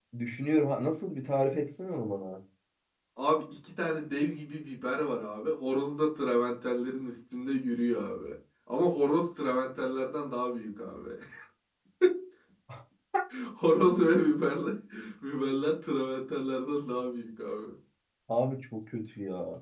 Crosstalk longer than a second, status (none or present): none